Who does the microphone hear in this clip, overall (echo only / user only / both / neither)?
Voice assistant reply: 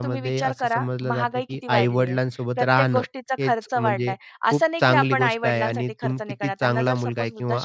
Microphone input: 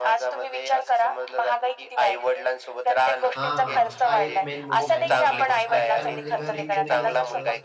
both